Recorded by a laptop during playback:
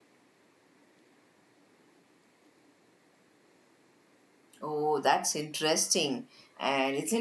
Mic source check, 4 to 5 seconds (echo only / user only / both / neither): user only